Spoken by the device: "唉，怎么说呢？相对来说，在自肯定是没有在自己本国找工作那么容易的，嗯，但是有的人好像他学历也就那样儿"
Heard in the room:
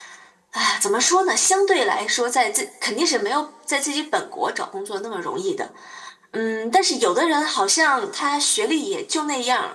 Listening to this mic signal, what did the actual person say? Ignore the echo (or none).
none